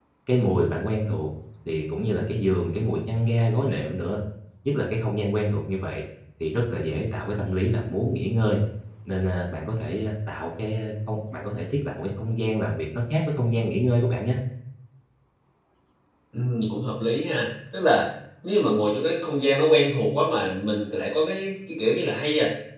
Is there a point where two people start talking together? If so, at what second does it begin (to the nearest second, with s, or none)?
none